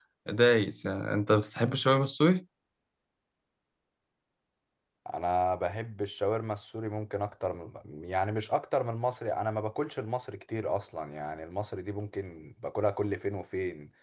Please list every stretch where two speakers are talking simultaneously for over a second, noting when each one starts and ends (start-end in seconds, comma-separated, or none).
none